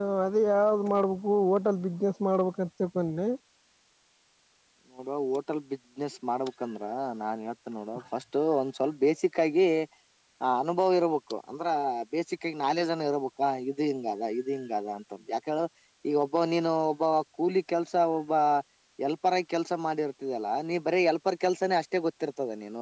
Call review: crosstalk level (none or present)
none